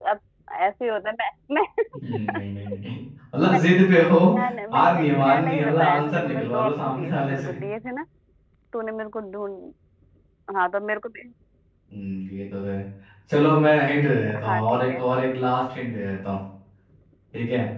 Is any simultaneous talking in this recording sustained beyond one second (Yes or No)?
Yes